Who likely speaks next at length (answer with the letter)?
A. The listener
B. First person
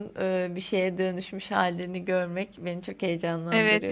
A